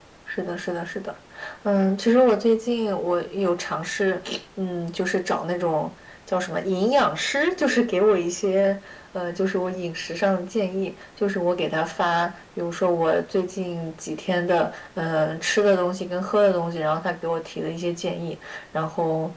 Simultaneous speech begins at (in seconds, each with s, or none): none